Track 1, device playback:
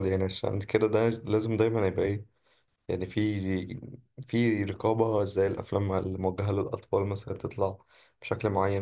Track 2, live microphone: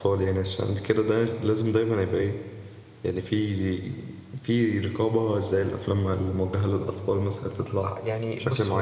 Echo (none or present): present